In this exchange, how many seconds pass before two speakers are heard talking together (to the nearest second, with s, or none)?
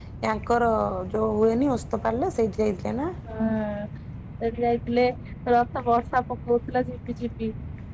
none